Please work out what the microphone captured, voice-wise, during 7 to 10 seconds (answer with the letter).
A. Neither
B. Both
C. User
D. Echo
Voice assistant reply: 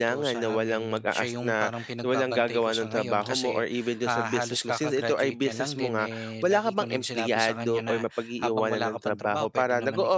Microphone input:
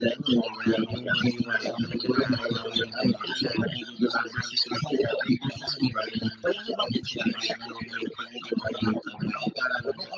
D